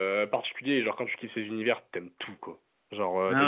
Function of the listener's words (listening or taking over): listening